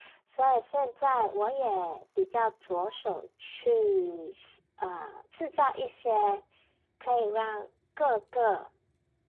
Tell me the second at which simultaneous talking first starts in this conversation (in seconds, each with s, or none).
none